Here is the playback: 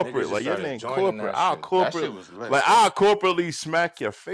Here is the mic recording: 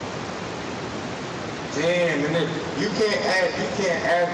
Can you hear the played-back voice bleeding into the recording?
No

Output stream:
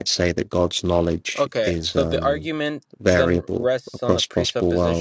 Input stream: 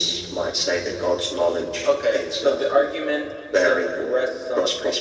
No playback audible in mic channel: No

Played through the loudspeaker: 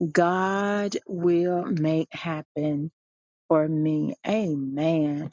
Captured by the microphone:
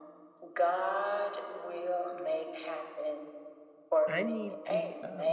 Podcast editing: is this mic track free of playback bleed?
No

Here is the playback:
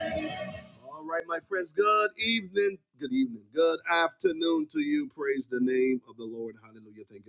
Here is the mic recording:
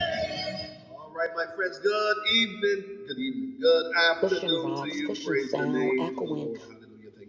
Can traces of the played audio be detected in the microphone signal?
Yes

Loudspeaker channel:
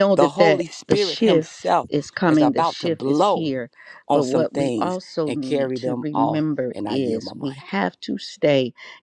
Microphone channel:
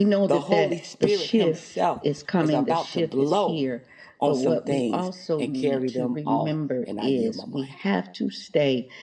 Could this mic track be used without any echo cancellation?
No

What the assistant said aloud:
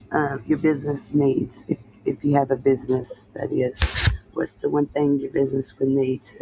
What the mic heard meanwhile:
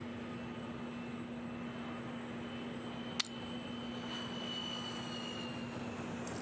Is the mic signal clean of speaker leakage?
Yes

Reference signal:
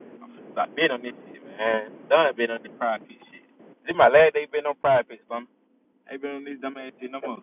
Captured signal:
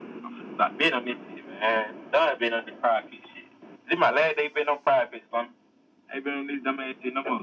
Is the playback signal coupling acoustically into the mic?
Yes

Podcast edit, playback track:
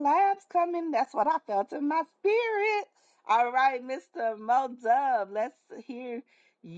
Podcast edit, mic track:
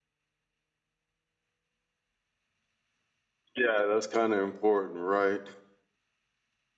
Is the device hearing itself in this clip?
No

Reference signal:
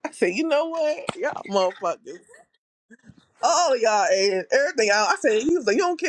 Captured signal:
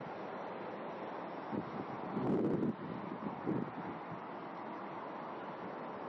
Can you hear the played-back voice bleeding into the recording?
No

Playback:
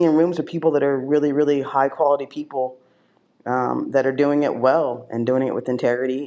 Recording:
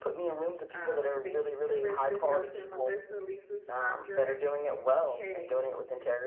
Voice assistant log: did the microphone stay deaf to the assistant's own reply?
No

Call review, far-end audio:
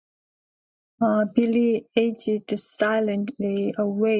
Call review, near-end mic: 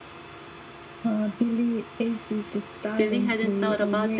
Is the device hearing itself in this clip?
Yes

